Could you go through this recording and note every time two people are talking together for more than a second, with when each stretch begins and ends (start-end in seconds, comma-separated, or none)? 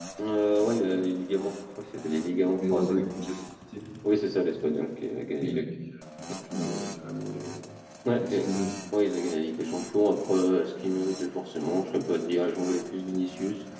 none